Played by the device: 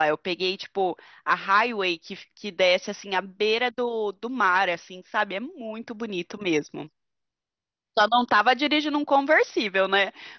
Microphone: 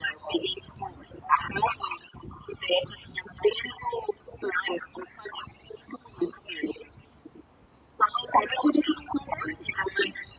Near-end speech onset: none

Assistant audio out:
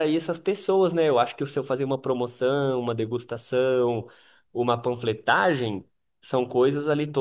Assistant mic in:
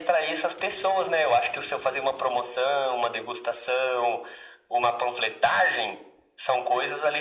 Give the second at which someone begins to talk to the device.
none

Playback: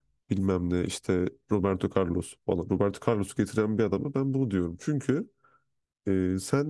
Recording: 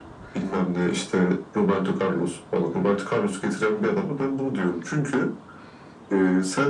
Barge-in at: none

